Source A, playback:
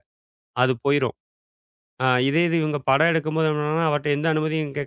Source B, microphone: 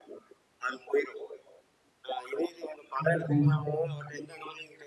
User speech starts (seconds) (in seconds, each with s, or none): 3.0 s